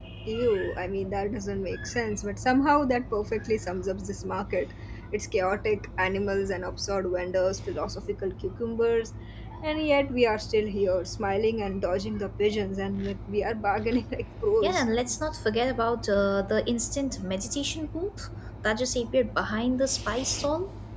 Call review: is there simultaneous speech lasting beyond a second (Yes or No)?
No